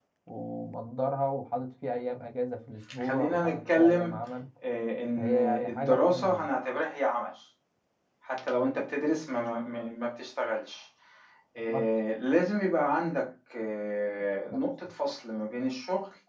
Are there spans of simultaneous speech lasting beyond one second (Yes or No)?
Yes